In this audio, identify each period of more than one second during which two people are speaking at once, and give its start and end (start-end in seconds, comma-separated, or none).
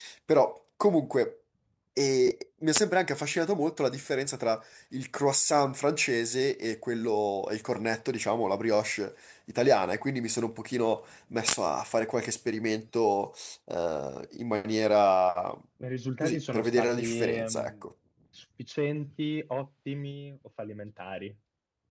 16.2-17.8